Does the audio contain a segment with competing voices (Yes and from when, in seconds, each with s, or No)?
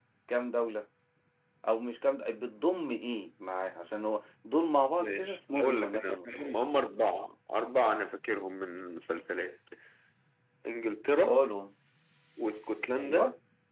Yes, from 5.0 s